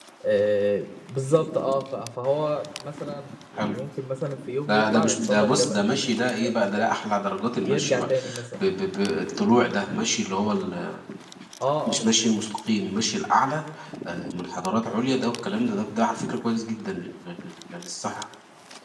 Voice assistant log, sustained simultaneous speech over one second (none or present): present